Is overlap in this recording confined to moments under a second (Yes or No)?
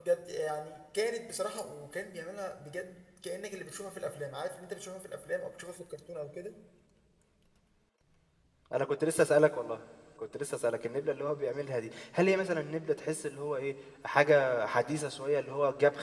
Yes